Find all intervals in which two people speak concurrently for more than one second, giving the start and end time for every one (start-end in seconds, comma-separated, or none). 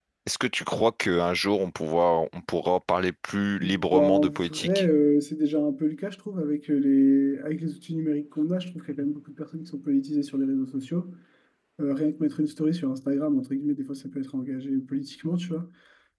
3.6-4.8